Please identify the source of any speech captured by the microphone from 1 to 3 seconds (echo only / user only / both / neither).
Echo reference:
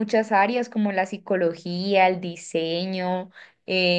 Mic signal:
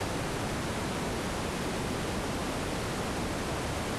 neither